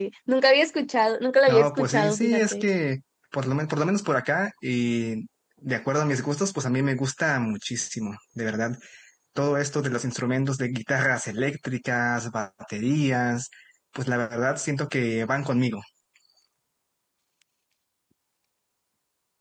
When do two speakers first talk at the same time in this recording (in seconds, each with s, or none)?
1.5 s